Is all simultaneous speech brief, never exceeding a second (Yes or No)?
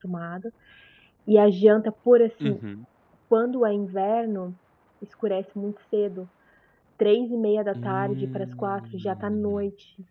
No